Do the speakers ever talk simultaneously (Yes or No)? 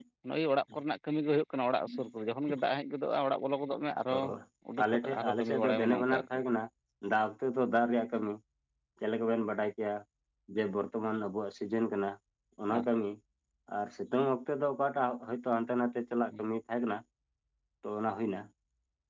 Yes